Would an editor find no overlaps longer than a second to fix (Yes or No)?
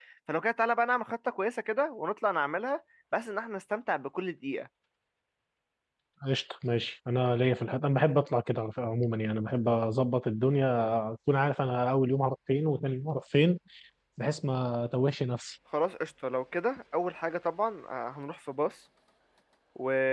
Yes